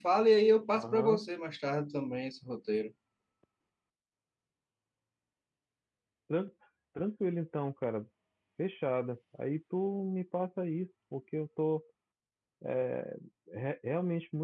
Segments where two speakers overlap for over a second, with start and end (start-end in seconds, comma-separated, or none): none